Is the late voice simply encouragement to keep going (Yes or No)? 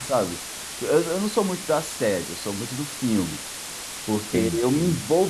Yes